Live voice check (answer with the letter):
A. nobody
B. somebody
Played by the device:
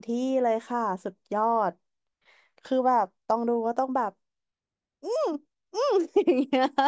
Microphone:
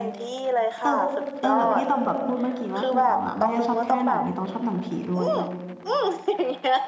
B